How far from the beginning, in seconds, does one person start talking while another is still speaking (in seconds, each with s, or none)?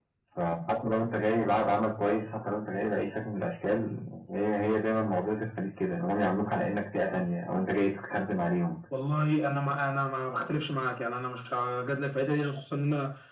none